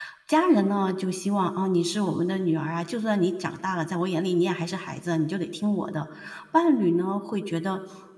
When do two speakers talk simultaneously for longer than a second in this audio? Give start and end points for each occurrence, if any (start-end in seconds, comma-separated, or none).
none